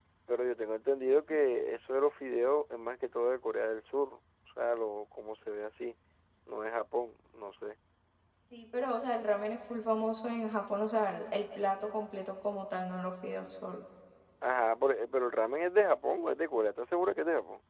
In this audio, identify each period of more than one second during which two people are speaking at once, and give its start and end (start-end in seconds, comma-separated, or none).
none